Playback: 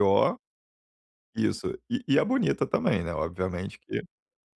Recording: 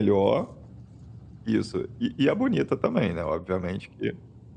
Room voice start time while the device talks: none

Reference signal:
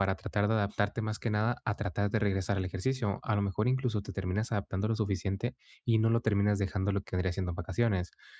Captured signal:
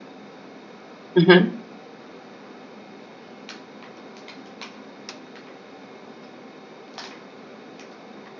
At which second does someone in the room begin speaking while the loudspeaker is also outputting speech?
1.1 s

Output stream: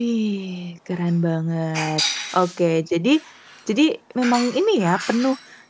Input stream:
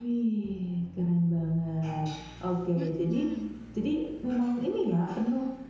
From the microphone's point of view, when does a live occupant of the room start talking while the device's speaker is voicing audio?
2.7 s

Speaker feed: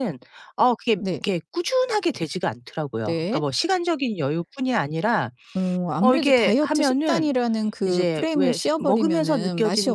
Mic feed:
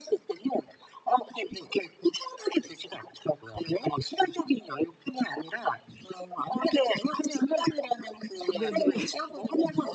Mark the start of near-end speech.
8.5 s

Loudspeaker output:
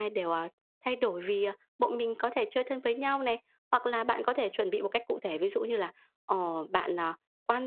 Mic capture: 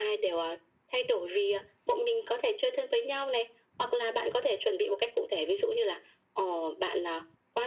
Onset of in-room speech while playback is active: none

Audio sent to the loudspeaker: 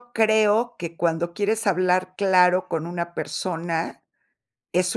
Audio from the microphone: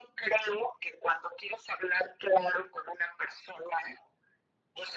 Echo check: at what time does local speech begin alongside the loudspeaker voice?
none

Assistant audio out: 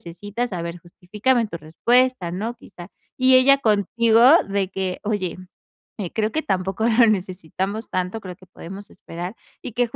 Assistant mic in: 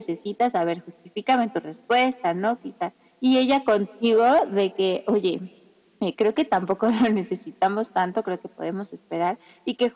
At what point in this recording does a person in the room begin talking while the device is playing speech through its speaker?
none

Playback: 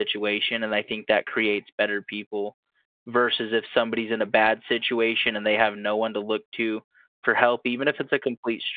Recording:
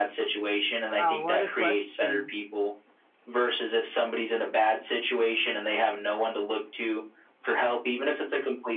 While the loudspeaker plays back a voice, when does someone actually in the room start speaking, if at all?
1.0 s

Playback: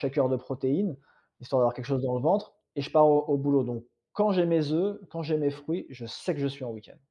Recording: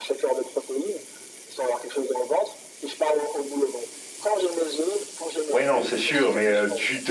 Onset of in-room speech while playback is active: 5.5 s

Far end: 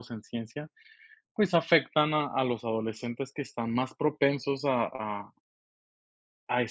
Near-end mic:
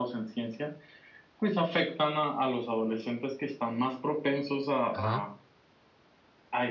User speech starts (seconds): 4.9 s

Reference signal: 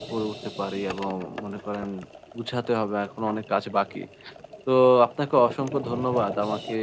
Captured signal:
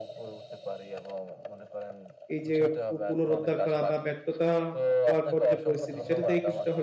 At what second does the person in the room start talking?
2.3 s

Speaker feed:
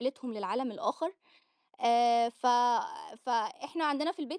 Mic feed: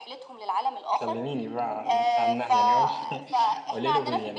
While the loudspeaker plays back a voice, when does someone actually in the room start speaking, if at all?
1.0 s

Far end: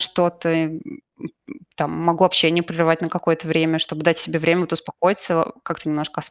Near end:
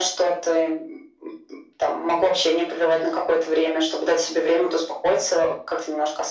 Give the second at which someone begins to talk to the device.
none

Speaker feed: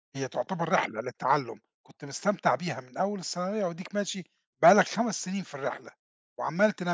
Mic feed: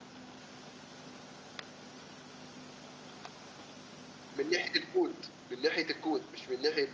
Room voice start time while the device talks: 4.3 s

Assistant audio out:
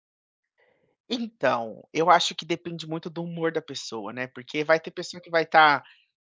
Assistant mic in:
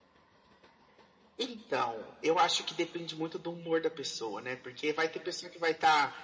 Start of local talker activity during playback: none

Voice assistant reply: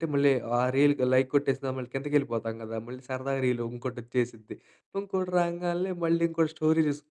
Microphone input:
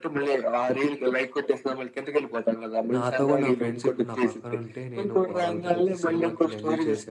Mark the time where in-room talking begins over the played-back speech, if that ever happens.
2.9 s

